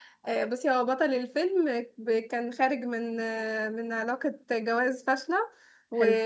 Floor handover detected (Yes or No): No